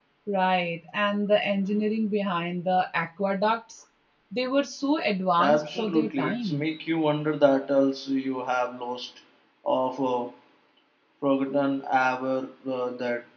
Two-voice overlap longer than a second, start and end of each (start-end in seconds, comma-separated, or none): 5.4-6.7